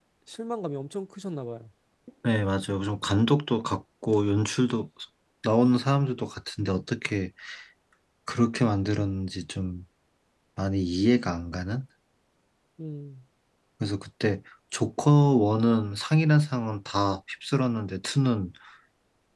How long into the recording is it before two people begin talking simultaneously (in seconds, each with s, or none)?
none